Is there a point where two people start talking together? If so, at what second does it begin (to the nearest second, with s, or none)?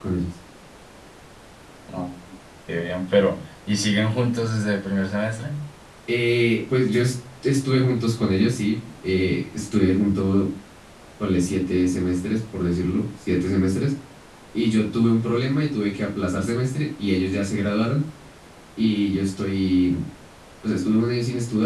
none